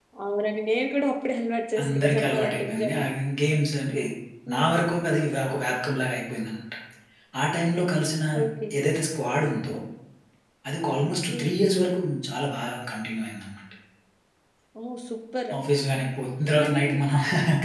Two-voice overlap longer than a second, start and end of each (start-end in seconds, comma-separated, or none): 1.8-3.0